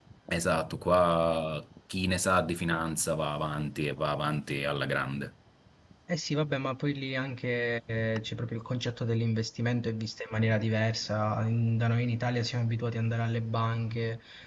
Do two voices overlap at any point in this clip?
No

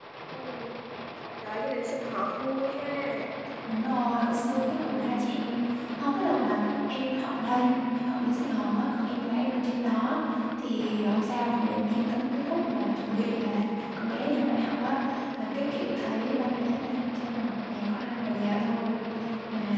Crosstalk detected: No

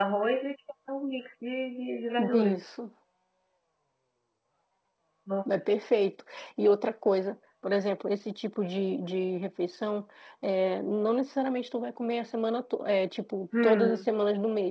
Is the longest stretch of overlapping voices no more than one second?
Yes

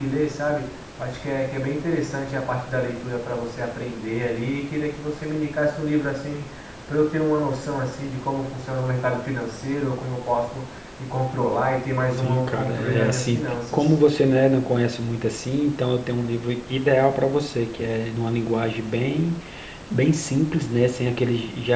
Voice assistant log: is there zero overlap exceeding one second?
No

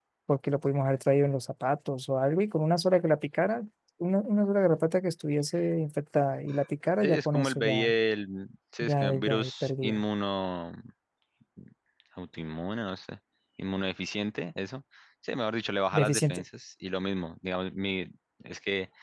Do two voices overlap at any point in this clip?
Yes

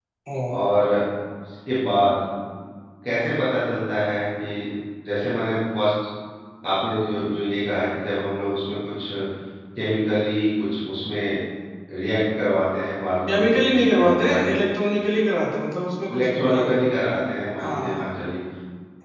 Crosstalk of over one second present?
Yes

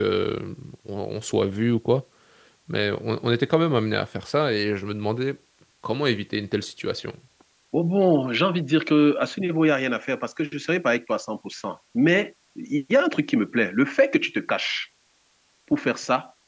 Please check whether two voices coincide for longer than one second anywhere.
No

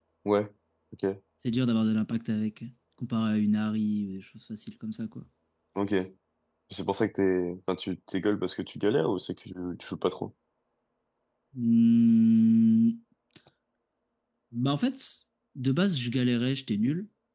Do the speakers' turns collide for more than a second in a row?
No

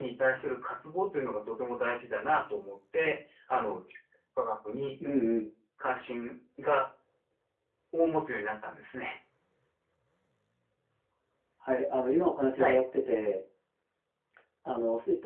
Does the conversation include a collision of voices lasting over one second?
No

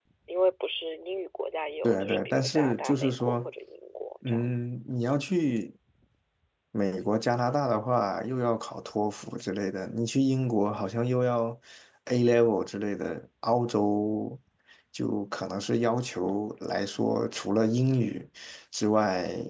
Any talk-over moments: Yes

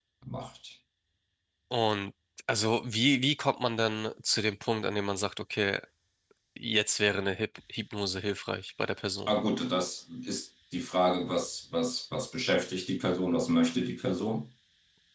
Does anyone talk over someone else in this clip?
No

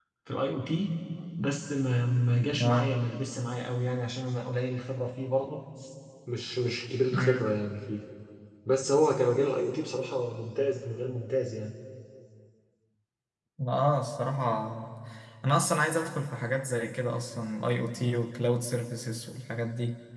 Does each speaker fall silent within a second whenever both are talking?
Yes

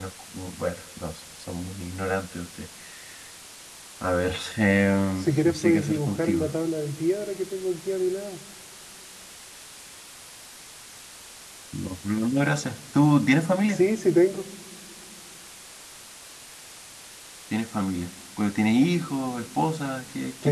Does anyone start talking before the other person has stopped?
Yes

